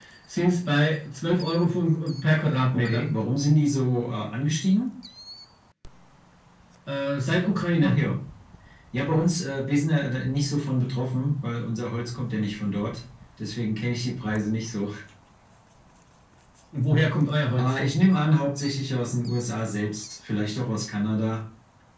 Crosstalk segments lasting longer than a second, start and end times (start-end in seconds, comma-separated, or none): none